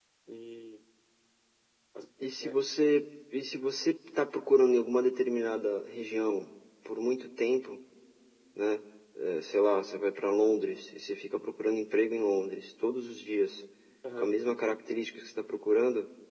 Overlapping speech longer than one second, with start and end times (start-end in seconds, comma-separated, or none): none